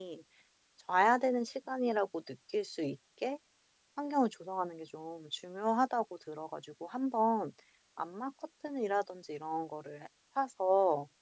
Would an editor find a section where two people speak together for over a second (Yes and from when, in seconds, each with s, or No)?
No